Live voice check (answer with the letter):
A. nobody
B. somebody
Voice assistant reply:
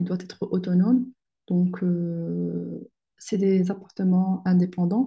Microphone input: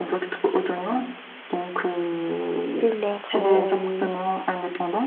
B